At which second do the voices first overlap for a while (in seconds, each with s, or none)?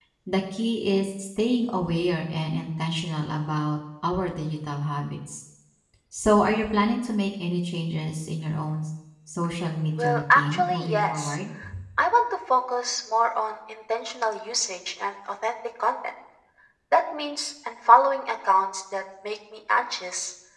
10.0 s